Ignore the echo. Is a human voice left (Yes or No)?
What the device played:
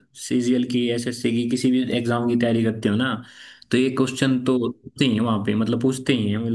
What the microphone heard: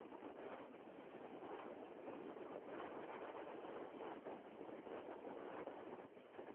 No